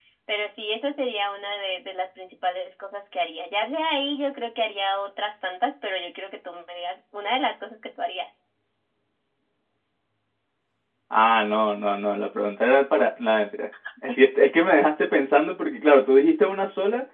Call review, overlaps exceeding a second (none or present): none